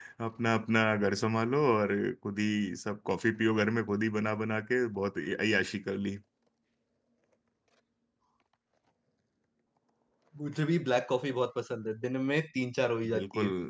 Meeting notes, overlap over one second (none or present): none